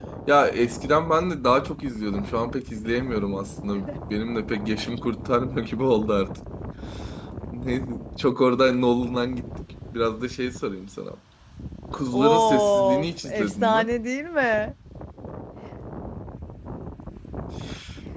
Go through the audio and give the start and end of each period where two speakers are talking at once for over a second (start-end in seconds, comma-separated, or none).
12.1-13.9